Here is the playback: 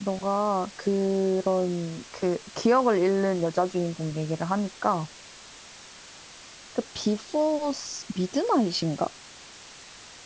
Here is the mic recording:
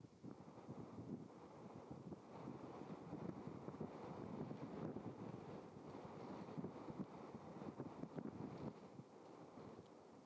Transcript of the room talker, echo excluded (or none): none